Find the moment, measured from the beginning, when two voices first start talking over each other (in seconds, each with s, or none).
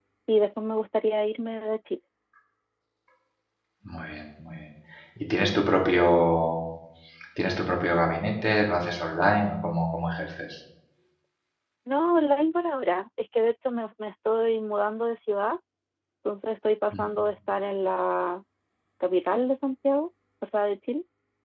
none